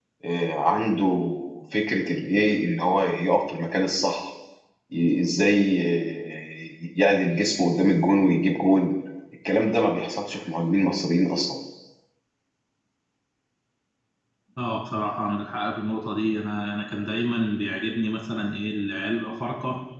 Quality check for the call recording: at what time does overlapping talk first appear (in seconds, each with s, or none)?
none